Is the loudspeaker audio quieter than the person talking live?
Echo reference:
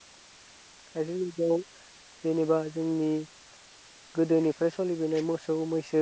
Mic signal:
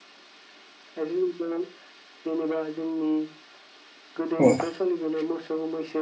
Yes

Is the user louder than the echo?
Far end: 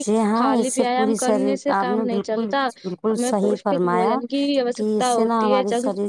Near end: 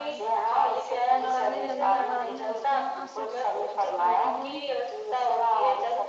No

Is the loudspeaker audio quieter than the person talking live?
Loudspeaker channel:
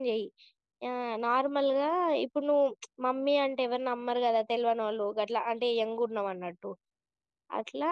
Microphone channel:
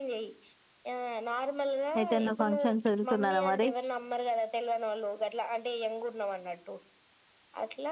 Yes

